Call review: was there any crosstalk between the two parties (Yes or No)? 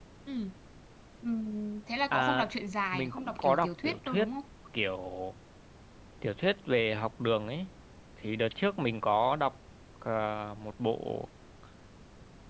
Yes